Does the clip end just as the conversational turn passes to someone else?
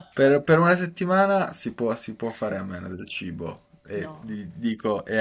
No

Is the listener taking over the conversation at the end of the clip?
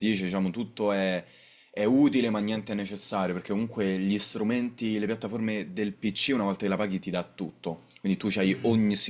No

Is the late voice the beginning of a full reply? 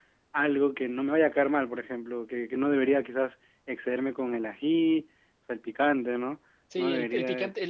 Yes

